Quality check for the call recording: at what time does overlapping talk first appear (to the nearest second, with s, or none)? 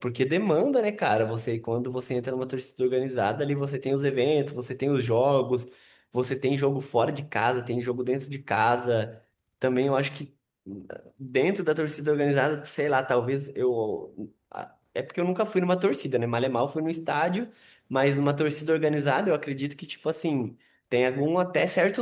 none